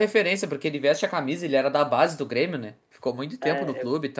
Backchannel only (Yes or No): No